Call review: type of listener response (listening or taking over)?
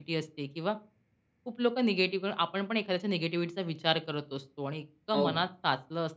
listening